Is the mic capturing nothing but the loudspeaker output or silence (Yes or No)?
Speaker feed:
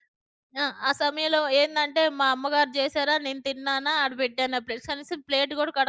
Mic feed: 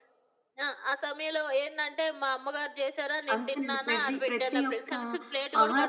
No